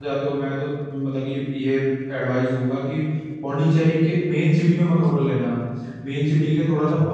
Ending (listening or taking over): listening